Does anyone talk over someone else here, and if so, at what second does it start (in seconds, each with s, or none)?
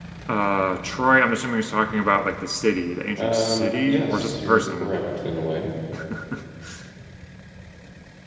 3.2 s